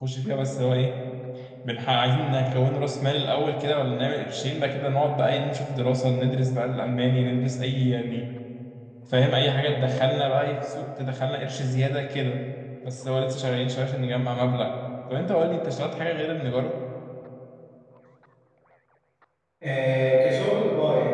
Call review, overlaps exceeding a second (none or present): none